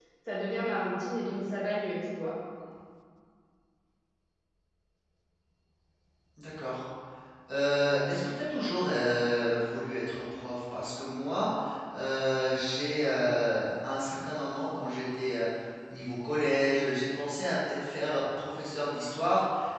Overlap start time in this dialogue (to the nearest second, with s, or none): none